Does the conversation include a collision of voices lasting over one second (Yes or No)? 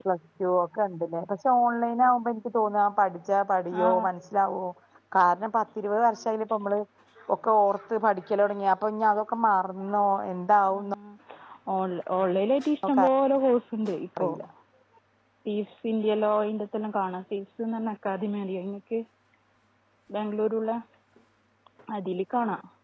No